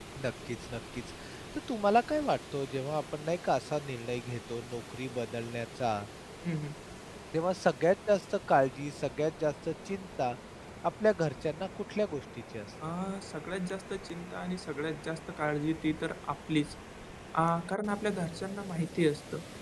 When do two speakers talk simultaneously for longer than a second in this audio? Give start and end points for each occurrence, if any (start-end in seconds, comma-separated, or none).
none